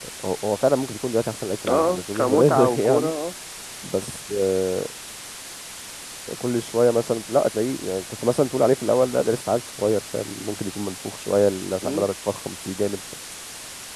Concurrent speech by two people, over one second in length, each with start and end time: 1.7-3.1

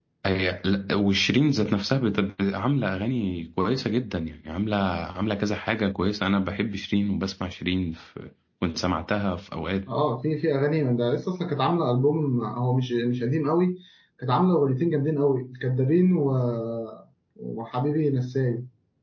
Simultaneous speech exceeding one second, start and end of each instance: none

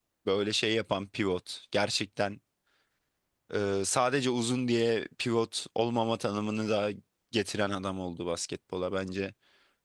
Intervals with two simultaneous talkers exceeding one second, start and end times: none

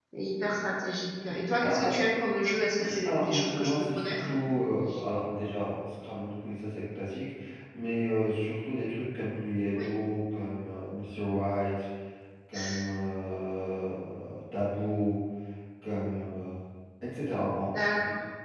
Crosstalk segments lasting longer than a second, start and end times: 3.0-4.3

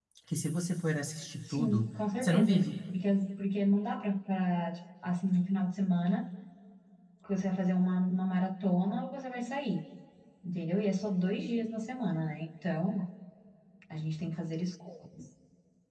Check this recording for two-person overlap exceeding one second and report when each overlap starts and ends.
1.5-2.7

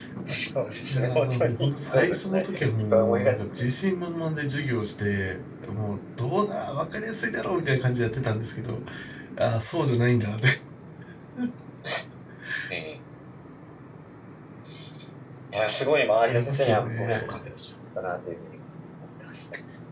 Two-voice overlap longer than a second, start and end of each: 0.9-3.6, 16.2-17.5

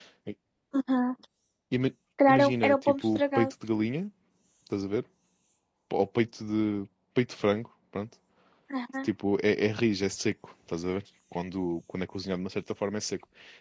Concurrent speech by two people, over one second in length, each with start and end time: 2.3-3.5

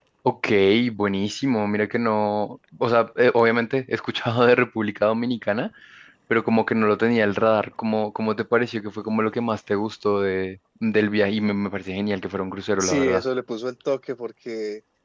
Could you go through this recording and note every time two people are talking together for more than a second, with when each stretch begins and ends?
none

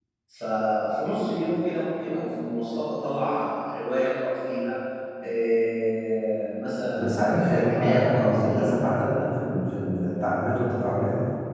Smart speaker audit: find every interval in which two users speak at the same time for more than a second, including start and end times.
7.0-8.6

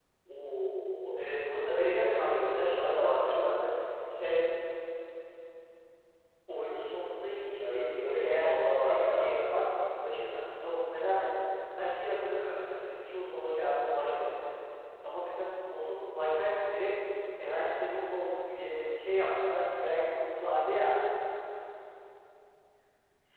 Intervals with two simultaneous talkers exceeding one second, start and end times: 1.7-3.6, 7.6-9.3

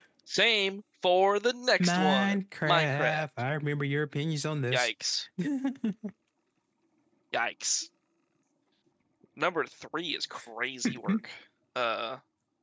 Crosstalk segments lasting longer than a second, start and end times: 1.8-3.2

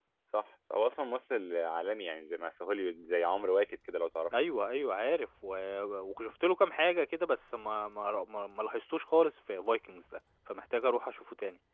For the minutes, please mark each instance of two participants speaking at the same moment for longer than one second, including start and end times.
none

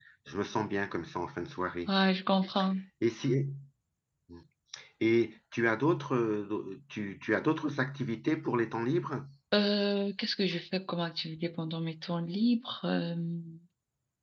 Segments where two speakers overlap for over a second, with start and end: none

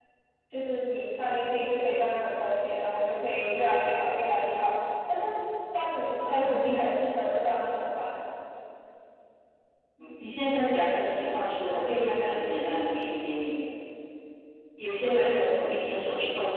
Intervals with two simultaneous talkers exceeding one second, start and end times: none

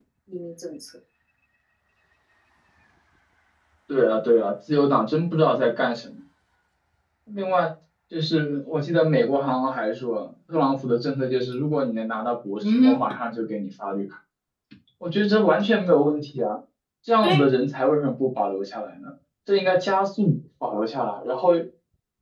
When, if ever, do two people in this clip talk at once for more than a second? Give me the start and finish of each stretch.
none

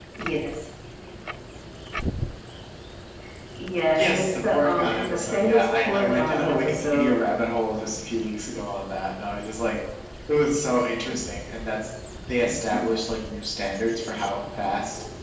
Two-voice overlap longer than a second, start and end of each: 4.0-7.2

